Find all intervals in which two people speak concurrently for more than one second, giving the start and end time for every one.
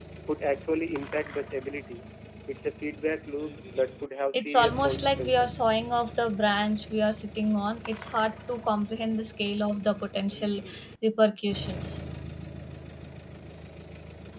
4.3-5.6

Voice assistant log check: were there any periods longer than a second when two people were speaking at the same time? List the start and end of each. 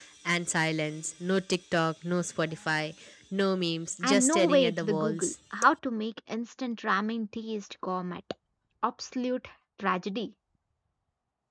4.0-5.3

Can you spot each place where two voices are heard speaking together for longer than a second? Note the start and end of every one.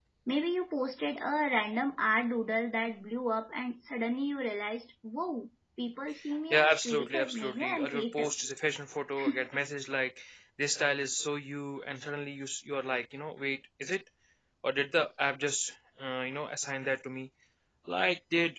6.5-8.3

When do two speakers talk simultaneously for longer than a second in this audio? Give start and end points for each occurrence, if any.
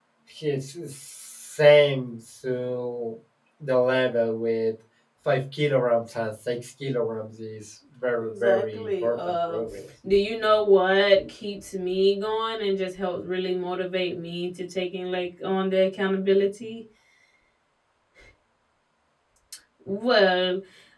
8.2-9.6

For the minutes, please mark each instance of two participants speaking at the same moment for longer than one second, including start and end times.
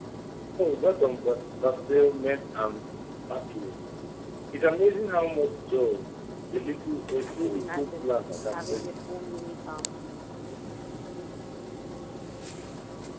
7.3-8.9

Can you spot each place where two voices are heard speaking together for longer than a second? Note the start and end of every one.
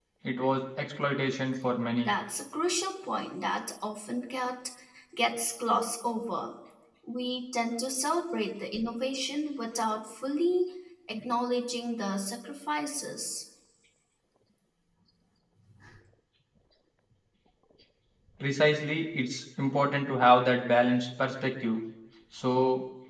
none

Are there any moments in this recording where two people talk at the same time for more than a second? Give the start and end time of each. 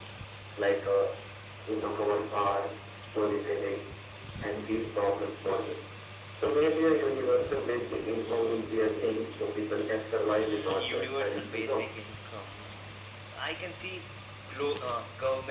10.2-12.0

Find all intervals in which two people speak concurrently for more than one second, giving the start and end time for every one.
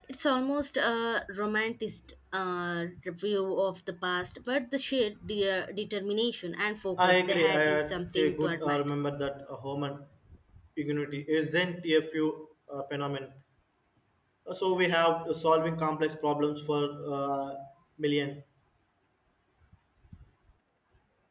7.0-8.8

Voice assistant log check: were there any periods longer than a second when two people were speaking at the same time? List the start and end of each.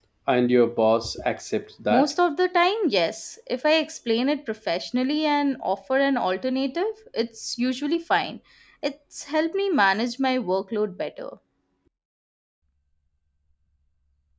none

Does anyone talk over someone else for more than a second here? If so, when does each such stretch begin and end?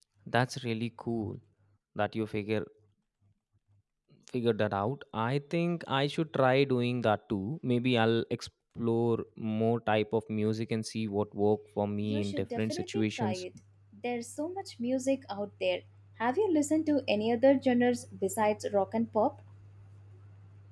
12.0-13.4

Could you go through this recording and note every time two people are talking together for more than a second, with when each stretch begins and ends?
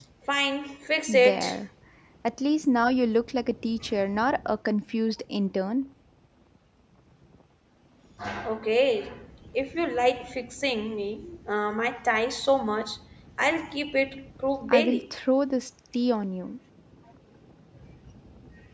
none

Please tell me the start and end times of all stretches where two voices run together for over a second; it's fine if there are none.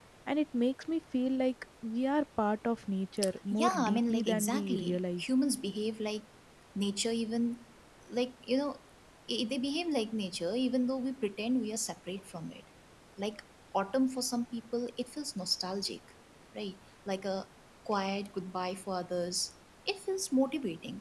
3.5-5.2

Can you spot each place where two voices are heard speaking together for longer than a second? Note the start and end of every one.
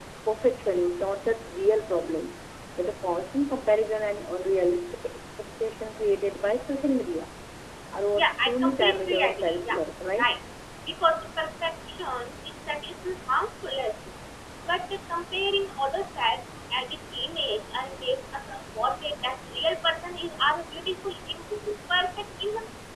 8.1-9.8

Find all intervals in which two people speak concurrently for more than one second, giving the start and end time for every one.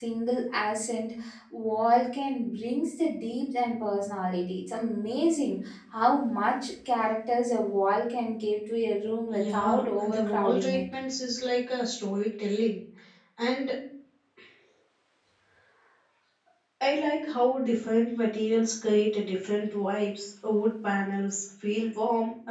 9.3-10.8

